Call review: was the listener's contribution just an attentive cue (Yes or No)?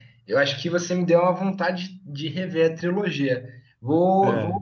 Yes